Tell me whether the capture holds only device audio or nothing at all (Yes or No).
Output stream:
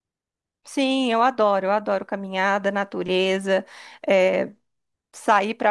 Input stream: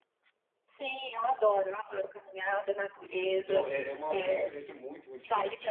No